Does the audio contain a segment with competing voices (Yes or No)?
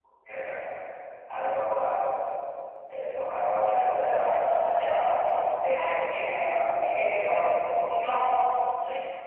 Yes